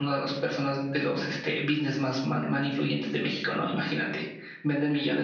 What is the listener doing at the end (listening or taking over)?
listening